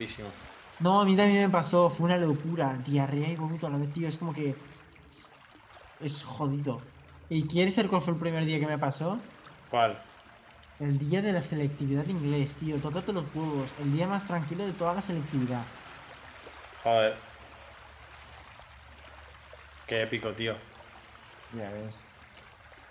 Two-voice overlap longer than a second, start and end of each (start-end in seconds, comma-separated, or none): none